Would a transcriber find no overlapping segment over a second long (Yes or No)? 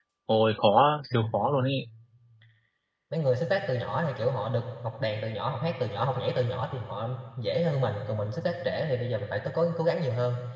Yes